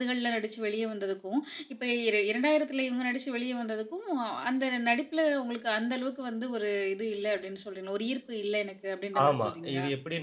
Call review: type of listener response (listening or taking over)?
taking over